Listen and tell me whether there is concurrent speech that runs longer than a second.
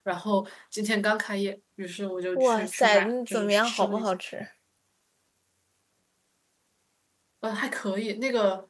Yes, from 2.4 s

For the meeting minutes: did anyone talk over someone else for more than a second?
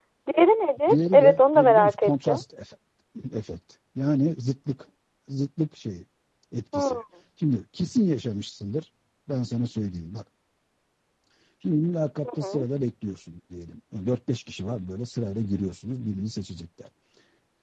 Yes, from 0.9 s

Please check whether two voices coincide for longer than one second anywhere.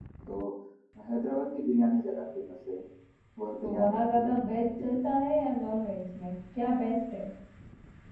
Yes, from 3.6 s

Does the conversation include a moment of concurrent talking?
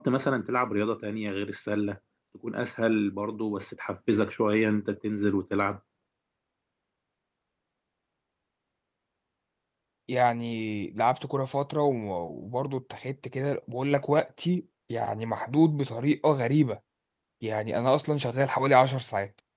No

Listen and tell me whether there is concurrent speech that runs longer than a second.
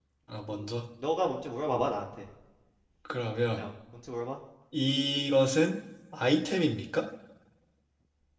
No

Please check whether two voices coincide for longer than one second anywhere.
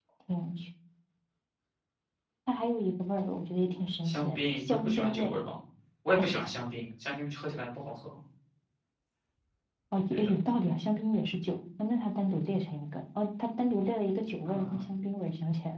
Yes, from 4.0 s

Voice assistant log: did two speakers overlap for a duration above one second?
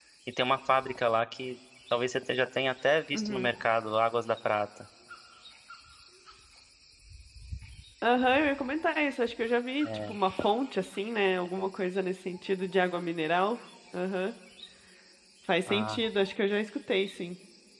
No

